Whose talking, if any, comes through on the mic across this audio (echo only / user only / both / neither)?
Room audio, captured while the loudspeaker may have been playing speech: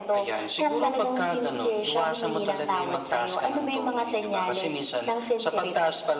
echo only